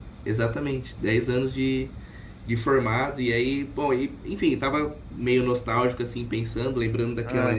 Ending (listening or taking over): listening